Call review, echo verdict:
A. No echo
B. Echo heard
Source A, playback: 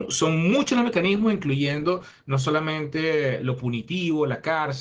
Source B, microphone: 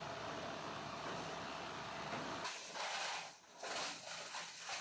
A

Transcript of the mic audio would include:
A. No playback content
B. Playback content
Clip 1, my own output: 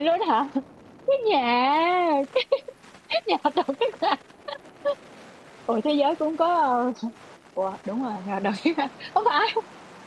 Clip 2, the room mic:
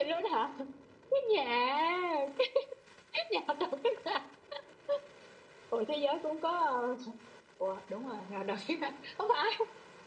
B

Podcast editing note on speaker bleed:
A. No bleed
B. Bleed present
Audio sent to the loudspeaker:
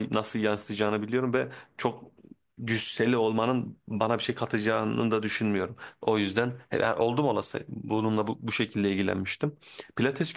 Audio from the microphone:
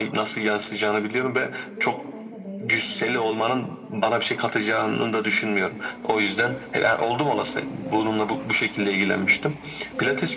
B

